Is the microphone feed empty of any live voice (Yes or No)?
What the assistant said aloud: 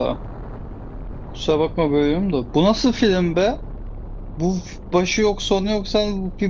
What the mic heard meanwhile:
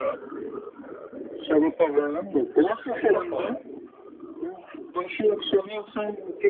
No